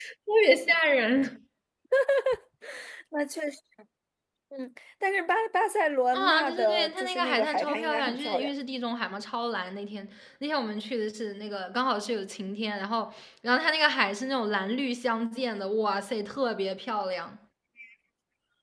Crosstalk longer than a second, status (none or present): present